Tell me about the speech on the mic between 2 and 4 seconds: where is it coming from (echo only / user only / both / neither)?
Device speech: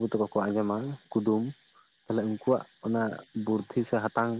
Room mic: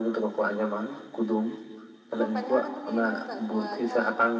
both